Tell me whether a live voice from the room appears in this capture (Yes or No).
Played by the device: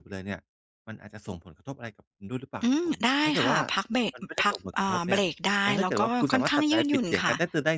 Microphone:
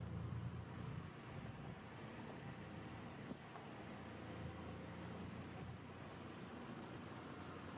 No